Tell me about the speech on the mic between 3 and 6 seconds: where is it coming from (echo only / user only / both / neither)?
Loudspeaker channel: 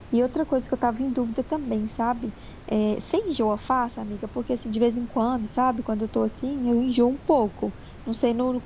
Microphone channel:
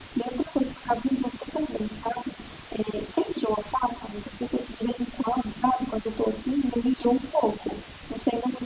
echo only